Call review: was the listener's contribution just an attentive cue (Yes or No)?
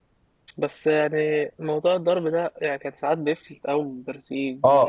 No